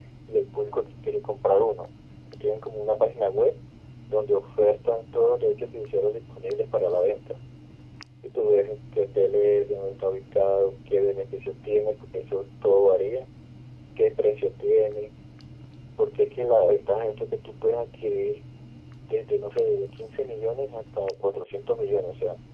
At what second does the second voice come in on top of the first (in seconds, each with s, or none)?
none